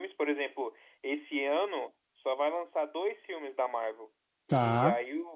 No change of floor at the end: Yes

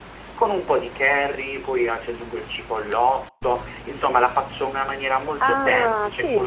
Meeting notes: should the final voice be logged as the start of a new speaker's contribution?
Yes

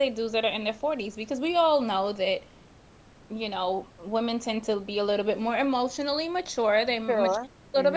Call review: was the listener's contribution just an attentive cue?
Yes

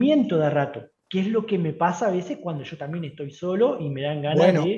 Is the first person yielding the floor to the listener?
Yes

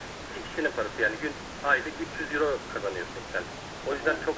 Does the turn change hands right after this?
Yes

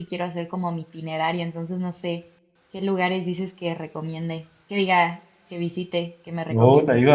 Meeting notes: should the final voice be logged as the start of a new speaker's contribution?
Yes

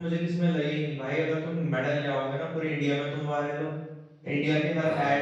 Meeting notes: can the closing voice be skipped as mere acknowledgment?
Yes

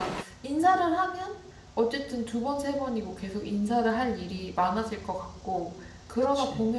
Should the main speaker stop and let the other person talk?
No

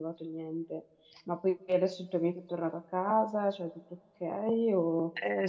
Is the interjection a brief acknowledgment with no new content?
No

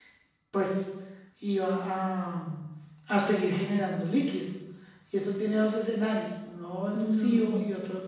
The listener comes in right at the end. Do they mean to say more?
No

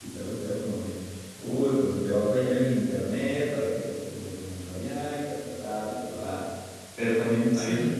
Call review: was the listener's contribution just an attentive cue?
Yes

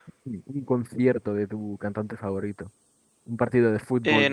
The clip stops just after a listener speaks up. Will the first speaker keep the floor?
Yes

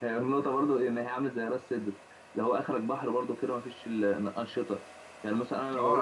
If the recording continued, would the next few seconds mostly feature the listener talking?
Yes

